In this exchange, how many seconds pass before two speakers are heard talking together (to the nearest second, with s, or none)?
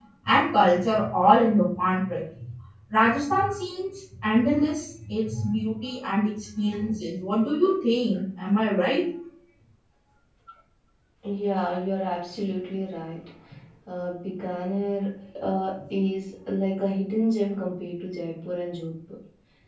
none